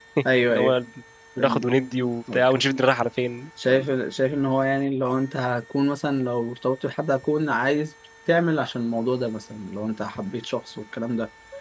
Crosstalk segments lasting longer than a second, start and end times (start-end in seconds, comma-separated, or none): none